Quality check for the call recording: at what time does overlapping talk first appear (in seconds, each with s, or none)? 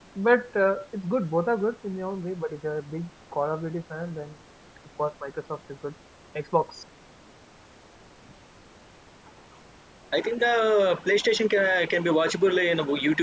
none